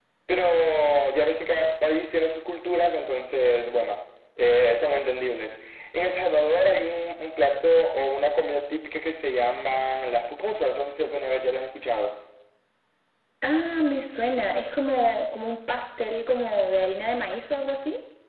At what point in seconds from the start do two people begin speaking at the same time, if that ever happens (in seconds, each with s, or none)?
none